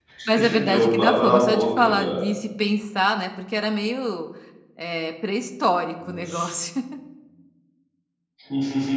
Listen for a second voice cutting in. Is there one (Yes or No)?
Yes